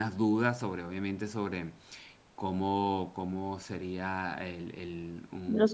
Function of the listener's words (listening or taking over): listening